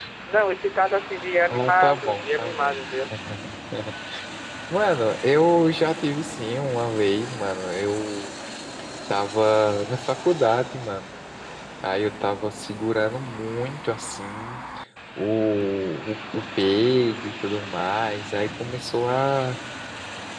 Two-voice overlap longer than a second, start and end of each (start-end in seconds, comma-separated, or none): 1.5-2.8